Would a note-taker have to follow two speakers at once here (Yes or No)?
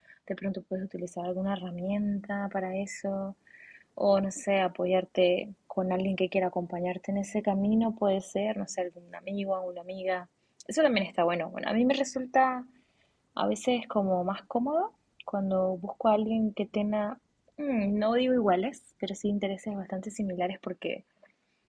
No